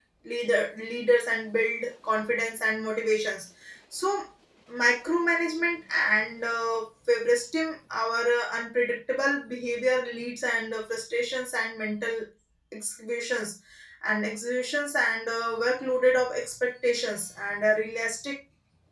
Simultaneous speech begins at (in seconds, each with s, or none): none